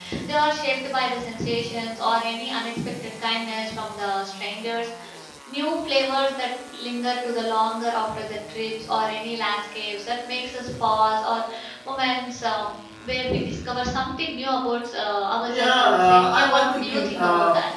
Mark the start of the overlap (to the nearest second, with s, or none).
15 s